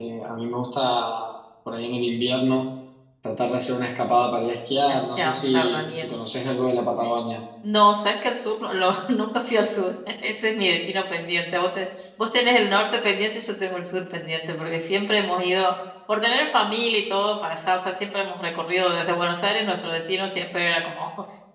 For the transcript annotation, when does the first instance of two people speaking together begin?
5 s

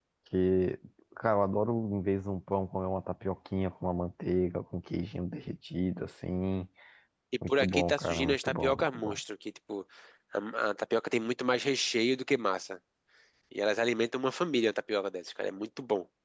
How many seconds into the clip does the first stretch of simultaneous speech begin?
7 s

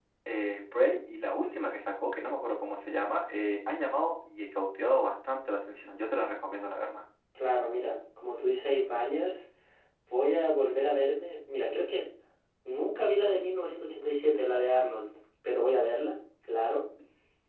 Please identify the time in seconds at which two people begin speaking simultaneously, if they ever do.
none

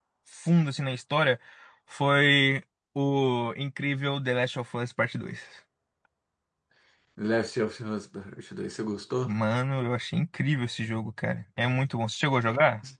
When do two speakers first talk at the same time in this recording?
none

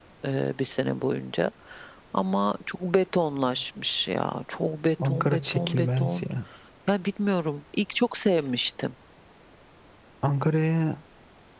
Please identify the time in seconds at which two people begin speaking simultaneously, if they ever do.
5 s

